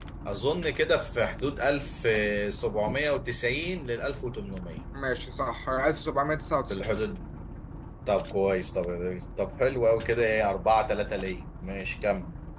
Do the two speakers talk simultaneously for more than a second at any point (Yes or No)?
No